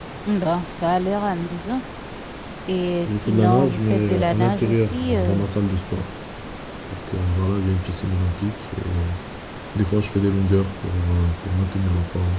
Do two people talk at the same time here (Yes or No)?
Yes